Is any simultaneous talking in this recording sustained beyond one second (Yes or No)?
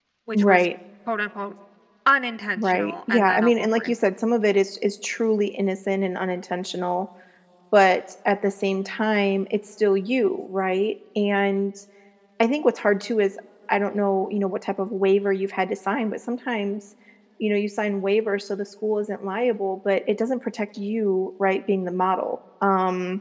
Yes